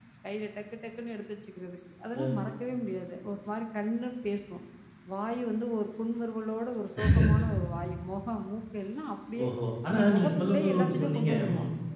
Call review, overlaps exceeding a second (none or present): present